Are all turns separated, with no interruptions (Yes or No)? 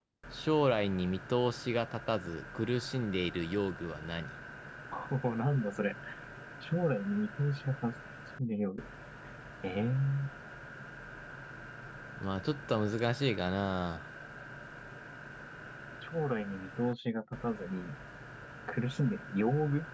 Yes